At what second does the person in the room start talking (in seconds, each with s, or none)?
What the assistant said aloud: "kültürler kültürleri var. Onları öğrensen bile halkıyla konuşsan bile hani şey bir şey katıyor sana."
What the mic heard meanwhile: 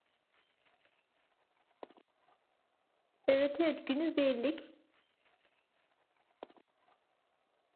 3.3 s